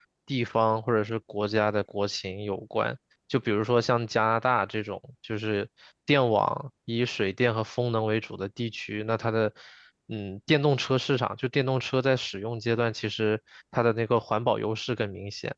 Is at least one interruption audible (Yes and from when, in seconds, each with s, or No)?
No